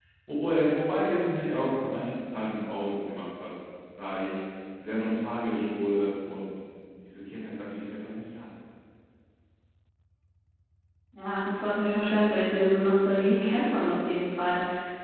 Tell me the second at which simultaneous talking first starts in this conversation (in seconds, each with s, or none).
none